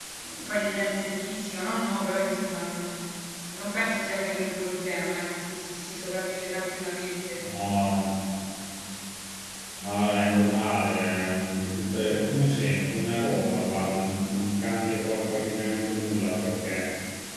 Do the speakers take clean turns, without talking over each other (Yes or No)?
Yes